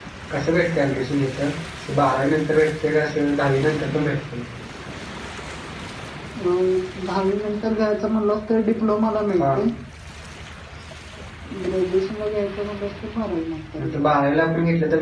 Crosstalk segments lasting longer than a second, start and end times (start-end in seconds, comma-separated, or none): none